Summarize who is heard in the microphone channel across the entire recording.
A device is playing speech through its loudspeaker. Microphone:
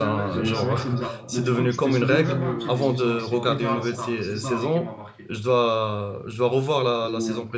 both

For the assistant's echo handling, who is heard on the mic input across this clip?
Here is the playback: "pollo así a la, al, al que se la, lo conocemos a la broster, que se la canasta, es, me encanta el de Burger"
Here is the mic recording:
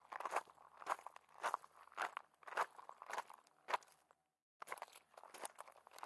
neither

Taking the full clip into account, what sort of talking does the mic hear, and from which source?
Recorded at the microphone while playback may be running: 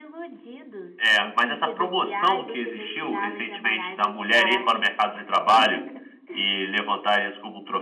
echo only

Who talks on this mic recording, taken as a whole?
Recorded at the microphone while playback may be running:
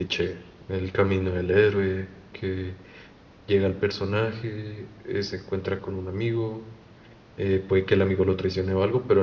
user only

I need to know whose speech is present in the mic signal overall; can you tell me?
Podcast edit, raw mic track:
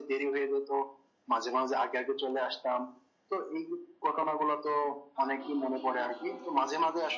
both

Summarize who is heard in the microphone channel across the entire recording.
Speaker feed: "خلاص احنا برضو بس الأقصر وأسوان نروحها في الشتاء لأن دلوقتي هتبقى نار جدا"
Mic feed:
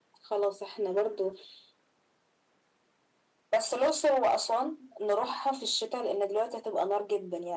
echo only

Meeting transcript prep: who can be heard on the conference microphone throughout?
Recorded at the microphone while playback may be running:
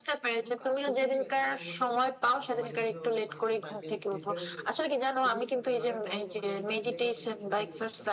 both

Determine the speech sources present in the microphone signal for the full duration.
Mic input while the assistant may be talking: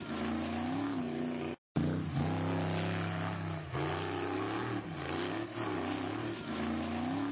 neither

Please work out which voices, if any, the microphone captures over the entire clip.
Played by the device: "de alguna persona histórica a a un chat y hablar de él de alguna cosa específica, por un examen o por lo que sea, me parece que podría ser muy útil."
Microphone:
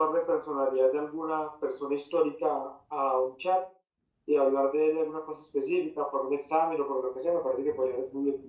echo only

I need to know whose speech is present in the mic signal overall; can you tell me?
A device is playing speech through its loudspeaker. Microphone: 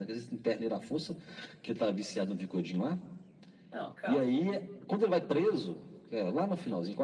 both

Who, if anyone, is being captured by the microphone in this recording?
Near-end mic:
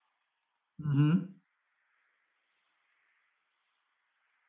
user only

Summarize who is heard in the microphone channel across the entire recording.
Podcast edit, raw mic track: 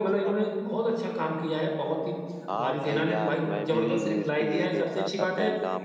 both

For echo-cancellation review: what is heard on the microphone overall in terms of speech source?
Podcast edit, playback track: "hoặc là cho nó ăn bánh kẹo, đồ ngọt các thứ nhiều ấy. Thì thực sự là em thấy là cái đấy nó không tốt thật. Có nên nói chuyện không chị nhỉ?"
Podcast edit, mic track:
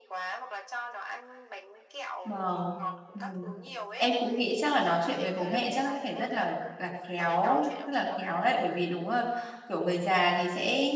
both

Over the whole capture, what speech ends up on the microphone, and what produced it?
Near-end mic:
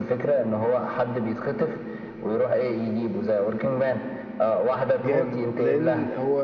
both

